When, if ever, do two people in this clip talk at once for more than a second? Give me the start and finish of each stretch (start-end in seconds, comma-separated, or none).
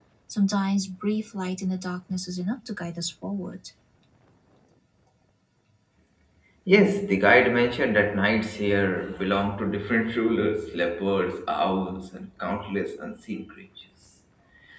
none